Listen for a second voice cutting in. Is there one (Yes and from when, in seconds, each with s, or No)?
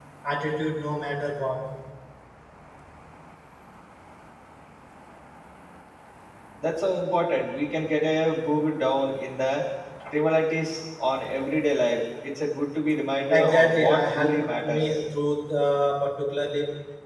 Yes, from 13.3 s